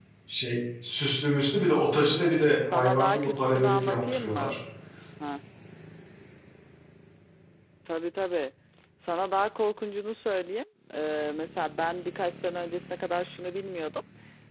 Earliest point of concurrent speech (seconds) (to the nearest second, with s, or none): 3 s